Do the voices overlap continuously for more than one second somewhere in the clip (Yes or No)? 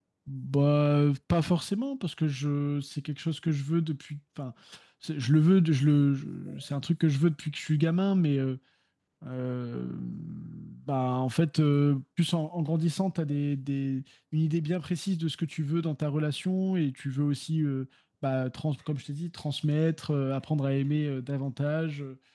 No